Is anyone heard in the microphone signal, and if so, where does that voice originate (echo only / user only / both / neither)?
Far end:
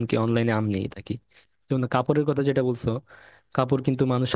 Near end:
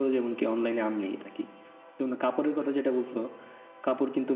echo only